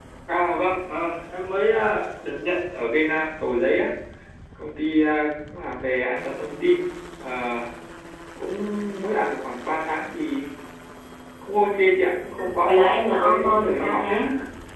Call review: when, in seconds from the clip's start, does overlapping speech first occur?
12.7 s

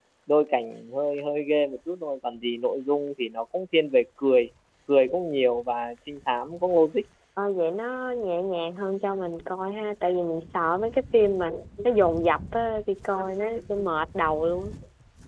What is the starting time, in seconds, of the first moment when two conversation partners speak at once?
none

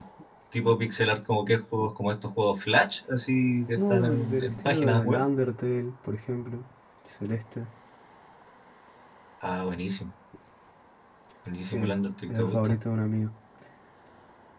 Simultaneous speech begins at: 3.8 s

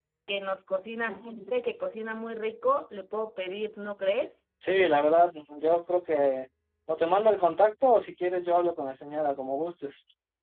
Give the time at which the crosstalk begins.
none

